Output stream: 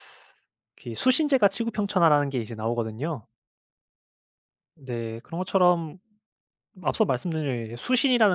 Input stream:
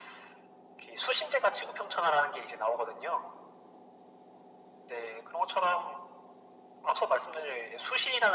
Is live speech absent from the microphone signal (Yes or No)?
Yes